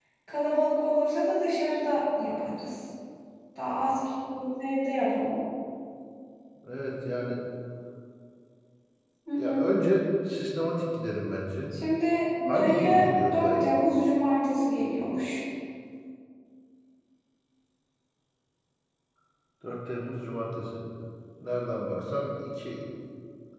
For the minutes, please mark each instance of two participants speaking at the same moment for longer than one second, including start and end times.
12.5-13.7

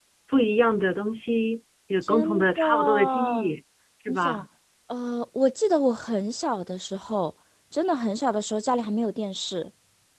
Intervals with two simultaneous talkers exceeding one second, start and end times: 2.0-3.5

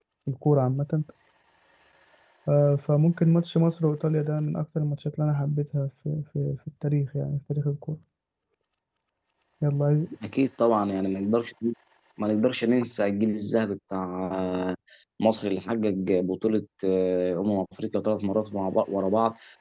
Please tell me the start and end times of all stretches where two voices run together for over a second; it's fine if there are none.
none

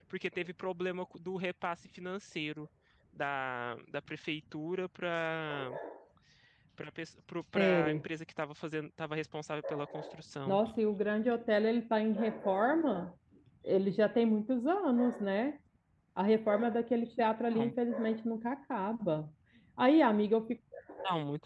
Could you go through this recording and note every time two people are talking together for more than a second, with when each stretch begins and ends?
none

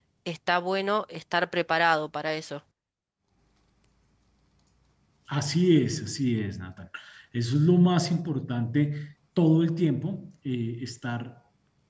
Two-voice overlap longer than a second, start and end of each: none

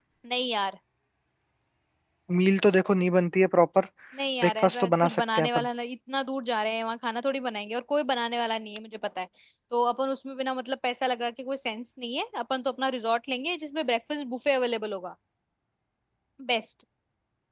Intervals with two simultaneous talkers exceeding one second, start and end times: 4.4-5.7

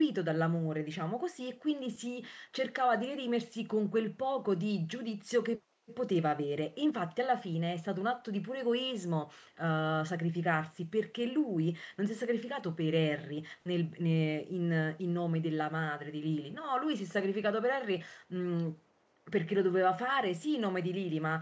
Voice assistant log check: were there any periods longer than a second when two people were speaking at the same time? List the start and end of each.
none

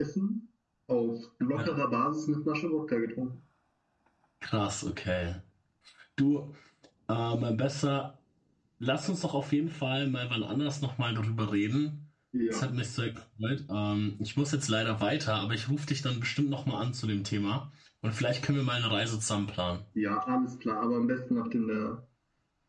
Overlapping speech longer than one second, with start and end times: none

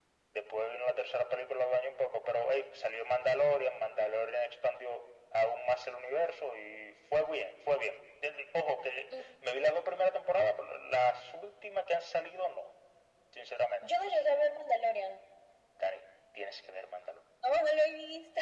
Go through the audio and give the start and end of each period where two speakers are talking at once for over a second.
none

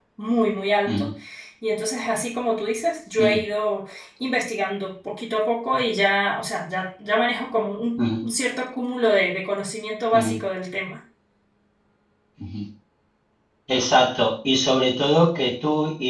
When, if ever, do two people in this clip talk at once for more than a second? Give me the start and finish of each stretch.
none

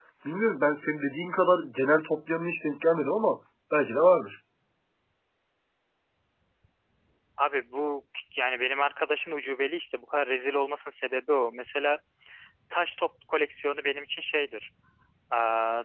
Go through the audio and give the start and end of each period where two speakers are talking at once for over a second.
none

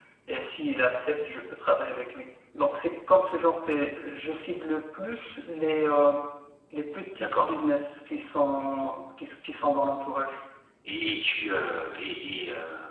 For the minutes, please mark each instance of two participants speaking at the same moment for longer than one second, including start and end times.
none

